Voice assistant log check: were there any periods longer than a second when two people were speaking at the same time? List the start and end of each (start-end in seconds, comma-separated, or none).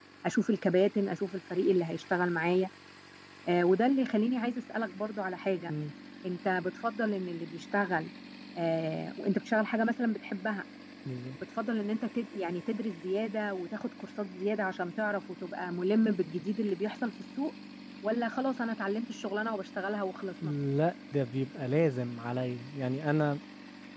none